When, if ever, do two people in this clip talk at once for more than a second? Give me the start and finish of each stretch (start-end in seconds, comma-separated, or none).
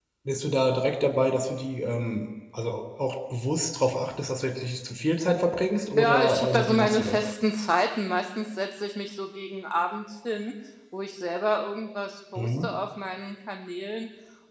6.0-7.3